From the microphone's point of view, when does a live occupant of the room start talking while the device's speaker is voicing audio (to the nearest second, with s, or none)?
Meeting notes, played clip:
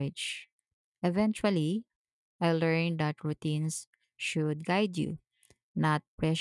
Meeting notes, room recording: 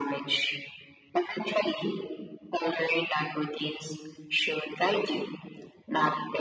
none